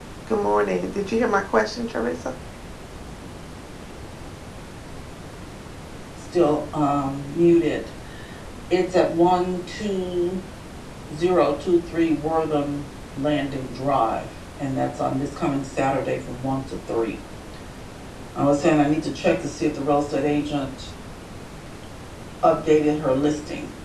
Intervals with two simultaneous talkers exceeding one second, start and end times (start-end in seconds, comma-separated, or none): none